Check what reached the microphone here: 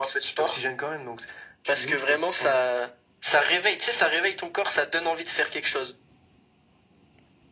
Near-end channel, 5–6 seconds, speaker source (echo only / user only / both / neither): echo only